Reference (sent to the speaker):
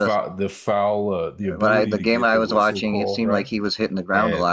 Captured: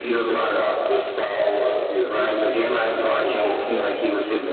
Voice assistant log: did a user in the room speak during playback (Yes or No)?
No